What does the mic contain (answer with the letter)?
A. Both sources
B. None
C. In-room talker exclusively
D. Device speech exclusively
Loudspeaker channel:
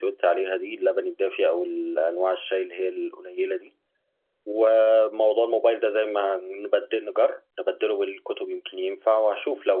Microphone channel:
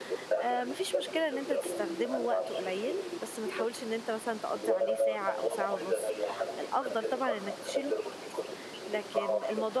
A